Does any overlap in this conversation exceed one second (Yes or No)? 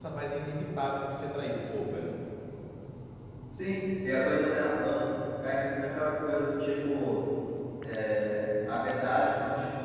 No